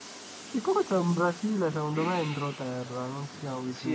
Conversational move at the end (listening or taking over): taking over